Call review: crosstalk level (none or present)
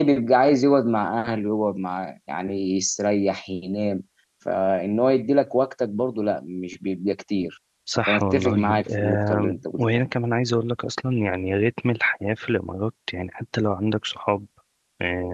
present